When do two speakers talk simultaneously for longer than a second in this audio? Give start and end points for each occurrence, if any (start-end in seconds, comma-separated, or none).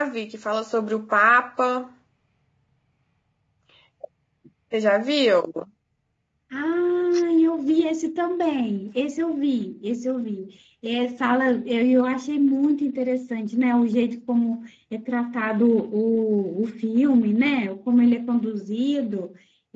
none